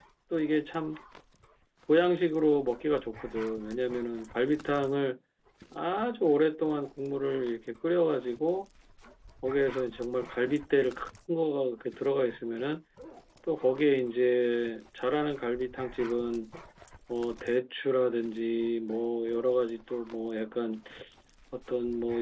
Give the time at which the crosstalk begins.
none

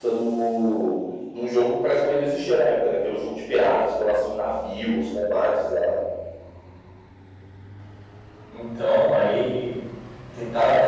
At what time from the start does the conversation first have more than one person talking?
none

